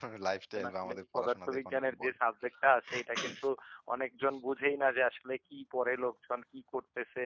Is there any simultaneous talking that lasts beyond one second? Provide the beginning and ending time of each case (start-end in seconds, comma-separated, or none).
0.6-2.1